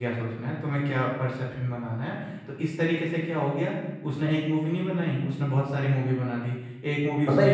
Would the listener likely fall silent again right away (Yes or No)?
No